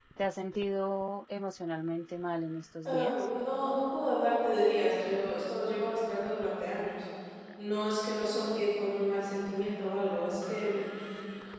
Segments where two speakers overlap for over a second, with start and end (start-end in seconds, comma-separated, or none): none